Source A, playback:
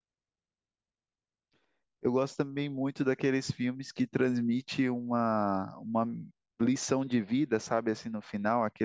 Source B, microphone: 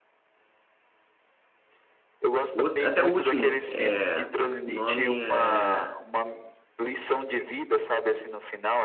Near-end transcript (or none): O outro- até o último, é, o nome é,